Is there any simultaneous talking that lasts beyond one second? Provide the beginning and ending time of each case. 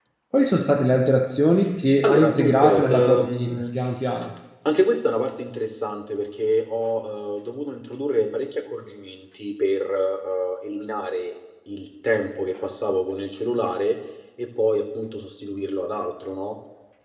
2.0-3.6

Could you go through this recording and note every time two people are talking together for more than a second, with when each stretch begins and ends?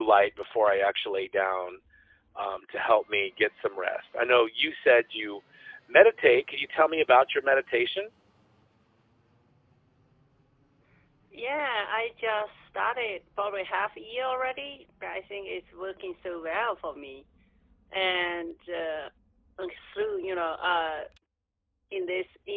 none

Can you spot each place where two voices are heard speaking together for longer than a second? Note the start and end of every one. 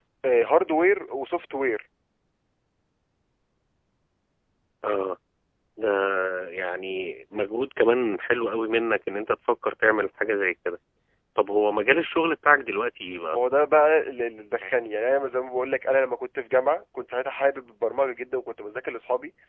none

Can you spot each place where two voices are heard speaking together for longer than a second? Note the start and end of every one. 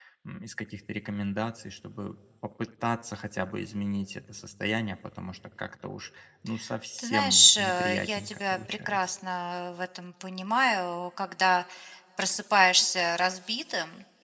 7.0-9.1

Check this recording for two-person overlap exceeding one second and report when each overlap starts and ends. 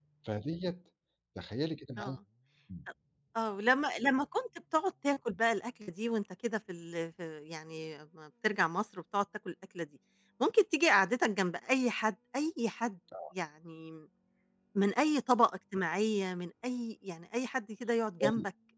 none

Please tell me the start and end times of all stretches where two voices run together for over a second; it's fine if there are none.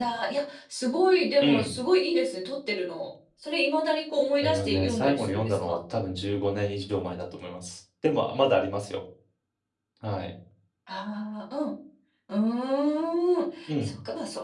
4.4-5.8

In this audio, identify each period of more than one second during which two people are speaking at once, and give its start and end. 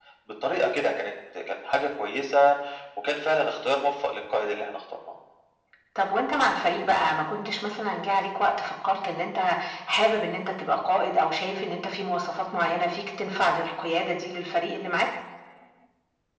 none

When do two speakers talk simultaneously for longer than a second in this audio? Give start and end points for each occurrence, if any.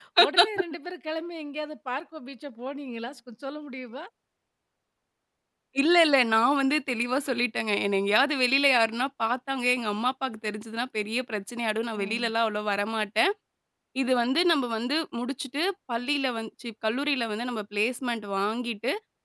none

